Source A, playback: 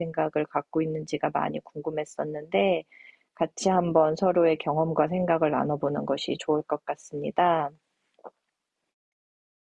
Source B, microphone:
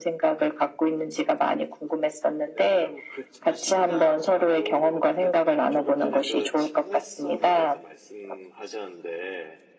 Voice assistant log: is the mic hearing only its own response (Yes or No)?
No